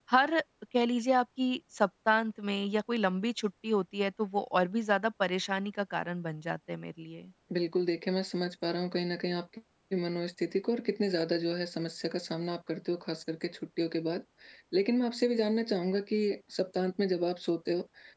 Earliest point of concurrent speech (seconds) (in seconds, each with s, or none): none